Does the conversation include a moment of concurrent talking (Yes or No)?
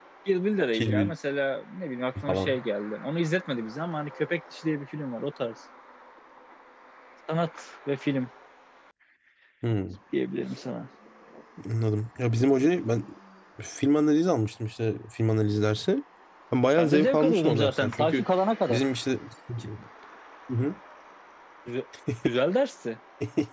Yes